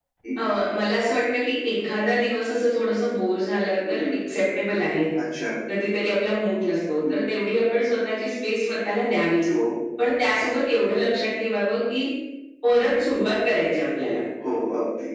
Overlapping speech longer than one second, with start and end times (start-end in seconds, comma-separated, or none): none